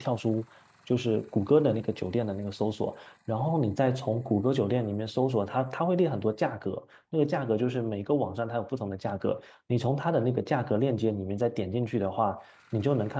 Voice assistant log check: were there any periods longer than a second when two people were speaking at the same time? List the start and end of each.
none

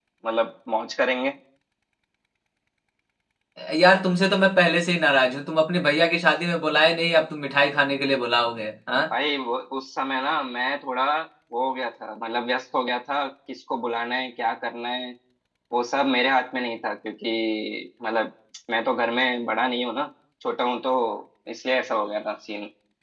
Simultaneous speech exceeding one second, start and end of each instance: none

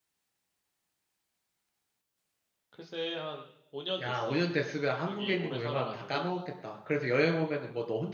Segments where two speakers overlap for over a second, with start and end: 5.1-6.3

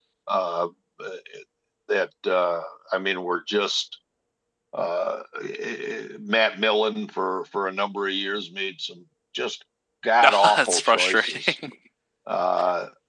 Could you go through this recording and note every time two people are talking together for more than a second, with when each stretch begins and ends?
10.2-11.5

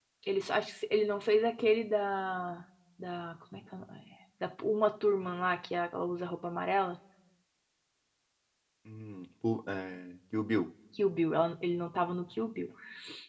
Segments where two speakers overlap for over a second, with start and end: none

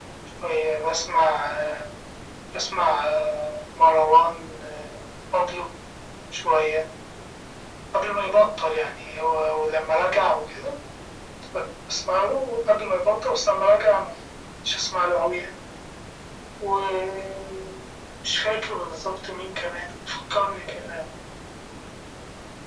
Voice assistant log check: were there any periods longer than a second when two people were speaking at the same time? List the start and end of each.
none

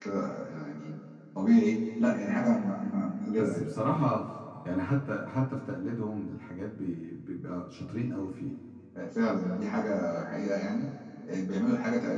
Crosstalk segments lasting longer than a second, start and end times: none

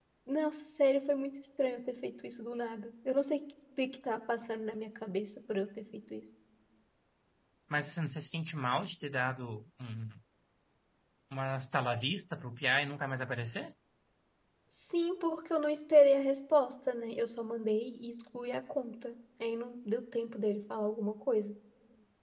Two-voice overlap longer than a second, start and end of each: none

